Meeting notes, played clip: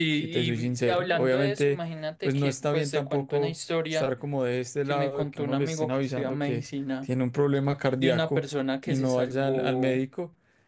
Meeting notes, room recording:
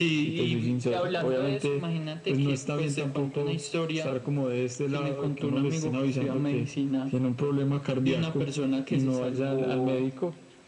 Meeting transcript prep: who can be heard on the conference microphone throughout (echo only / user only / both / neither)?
echo only